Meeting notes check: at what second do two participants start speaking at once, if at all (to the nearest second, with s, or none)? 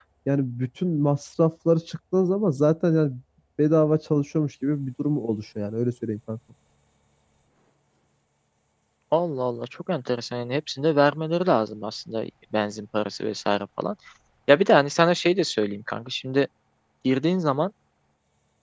none